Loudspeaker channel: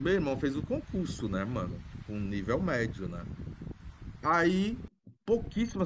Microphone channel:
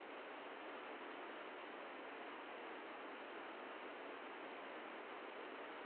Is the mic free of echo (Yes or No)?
Yes